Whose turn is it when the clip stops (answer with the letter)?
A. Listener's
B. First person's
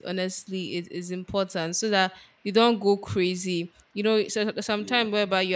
B